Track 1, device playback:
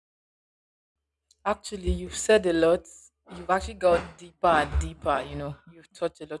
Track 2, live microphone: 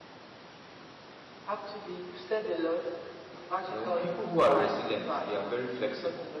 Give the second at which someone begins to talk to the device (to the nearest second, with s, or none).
4 s